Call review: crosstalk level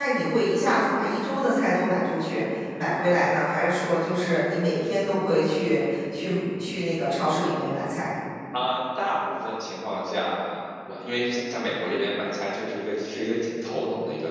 none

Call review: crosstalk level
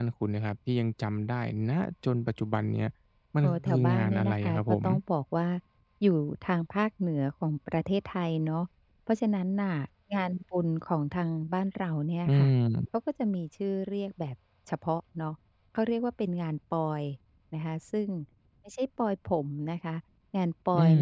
present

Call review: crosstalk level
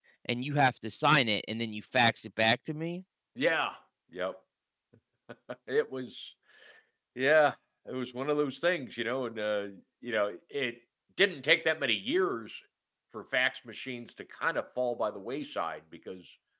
none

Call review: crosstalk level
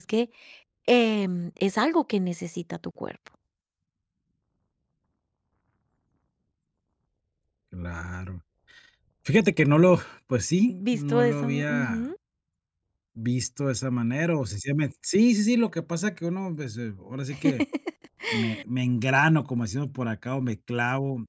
present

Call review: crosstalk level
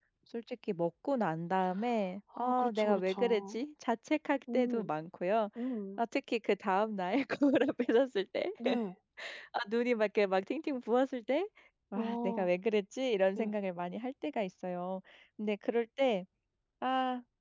present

